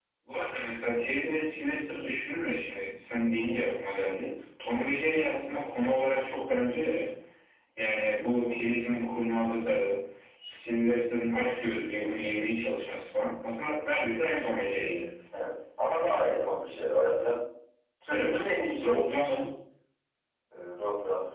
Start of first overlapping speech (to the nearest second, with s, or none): 18 s